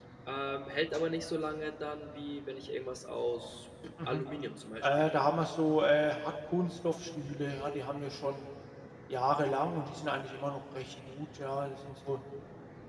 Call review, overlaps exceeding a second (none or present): none